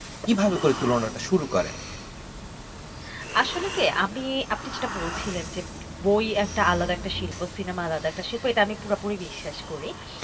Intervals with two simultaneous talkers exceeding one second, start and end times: none

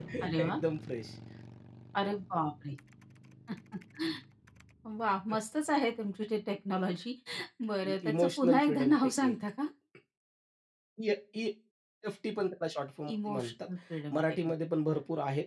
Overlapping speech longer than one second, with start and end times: 8.1-9.3

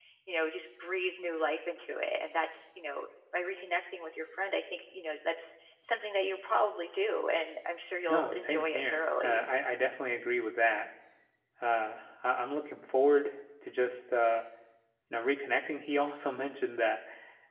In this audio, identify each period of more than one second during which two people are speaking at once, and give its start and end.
8.1-9.4

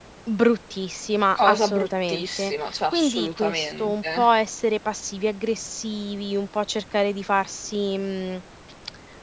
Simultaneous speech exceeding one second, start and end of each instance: 1.4-4.3

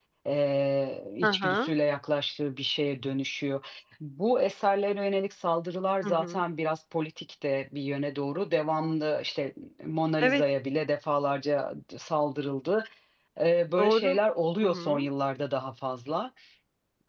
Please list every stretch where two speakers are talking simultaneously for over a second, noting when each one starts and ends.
none

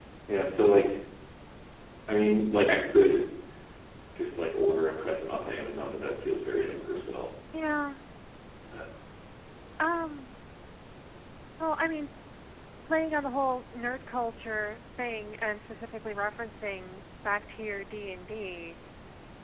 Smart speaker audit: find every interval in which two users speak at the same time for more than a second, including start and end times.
none

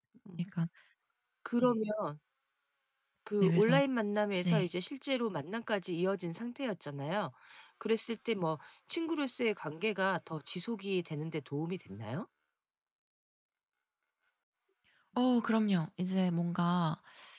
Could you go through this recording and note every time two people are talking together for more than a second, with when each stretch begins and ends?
none

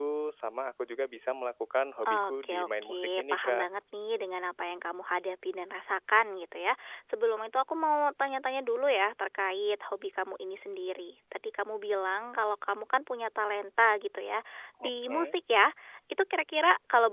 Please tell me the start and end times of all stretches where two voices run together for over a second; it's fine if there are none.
2.0-3.6

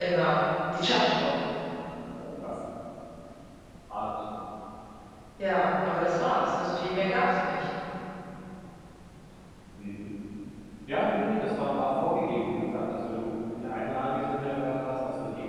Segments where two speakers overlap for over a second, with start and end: none

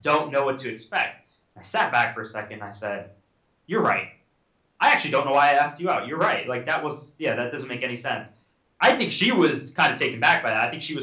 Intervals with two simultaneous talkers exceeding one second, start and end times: none

